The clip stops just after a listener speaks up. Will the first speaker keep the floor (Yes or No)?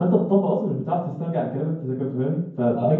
Yes